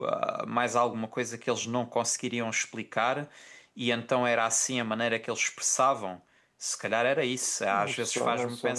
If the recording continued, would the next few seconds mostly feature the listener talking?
Yes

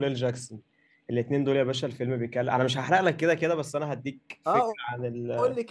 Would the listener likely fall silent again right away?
No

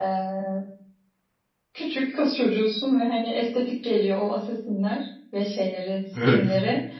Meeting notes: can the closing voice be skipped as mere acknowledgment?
Yes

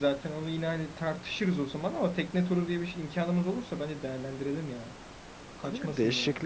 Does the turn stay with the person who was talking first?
No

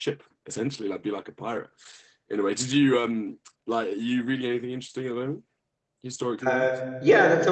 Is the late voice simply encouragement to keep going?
No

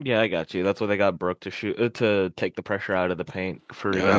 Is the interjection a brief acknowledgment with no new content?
No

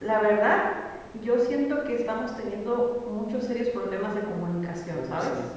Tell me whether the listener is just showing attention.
No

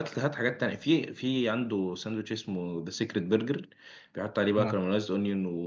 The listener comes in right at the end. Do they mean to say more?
No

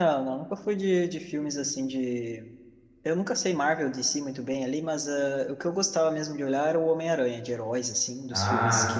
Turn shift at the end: No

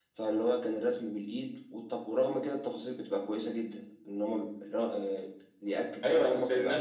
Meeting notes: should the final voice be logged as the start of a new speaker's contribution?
Yes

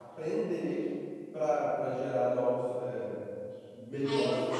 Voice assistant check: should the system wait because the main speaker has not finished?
No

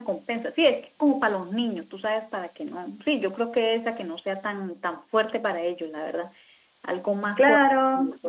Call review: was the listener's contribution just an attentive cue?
No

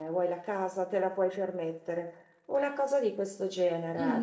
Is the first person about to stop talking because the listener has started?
Yes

